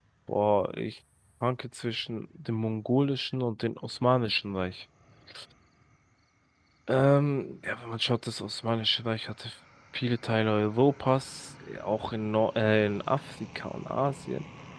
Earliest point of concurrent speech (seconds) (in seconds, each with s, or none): none